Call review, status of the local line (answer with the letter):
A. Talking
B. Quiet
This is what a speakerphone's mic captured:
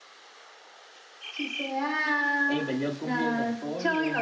A